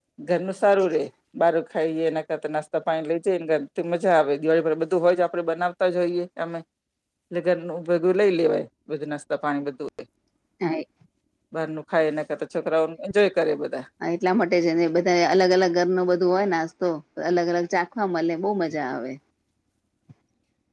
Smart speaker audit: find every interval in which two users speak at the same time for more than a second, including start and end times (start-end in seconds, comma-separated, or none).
none